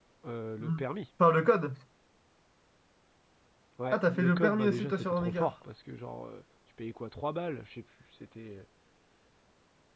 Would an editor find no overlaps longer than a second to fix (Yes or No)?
No